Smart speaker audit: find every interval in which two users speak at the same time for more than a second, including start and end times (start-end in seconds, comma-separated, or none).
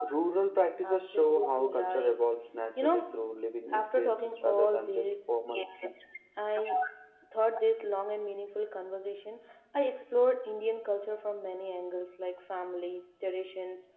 0.8-2.2, 3.7-5.1